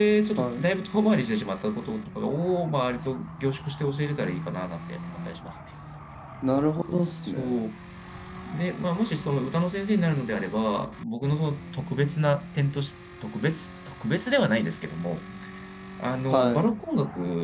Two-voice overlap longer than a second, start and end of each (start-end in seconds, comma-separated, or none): none